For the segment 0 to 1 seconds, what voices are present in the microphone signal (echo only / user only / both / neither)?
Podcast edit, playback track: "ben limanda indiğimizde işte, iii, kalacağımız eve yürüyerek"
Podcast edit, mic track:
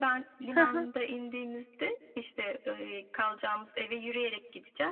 both